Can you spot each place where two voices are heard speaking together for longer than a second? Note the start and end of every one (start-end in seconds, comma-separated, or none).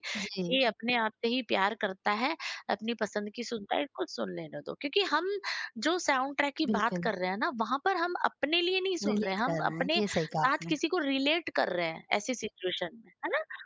9.1-10.7